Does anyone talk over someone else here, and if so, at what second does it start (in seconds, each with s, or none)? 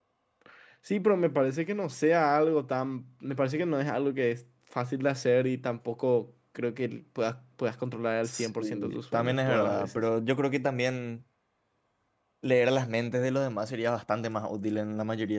8.2 s